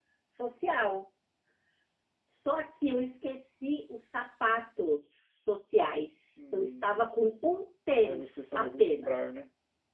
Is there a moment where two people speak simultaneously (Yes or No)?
Yes